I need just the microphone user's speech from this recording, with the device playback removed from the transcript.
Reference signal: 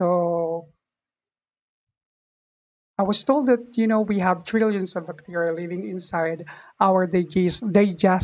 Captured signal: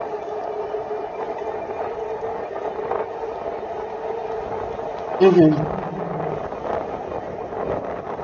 Mm-hmm.

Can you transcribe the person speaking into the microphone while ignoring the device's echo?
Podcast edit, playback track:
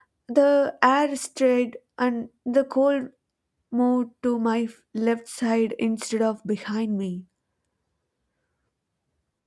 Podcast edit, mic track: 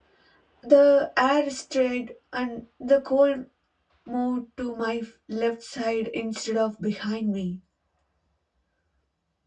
none

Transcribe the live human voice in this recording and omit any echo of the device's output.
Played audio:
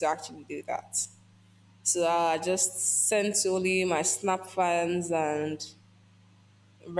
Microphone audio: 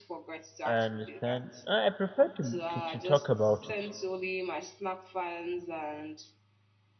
I understand. I I prefer to, to, to talk about it.

